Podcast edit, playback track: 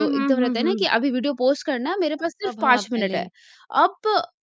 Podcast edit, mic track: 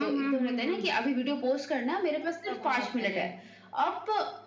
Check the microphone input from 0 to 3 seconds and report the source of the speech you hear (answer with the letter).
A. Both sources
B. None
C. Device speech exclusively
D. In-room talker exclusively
C